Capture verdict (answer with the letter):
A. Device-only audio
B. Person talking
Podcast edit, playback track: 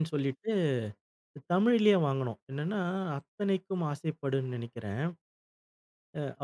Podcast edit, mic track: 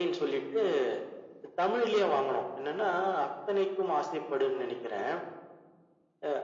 A